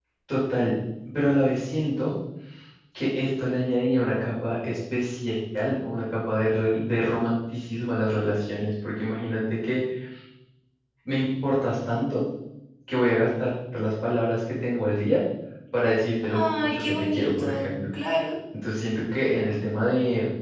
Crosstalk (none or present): present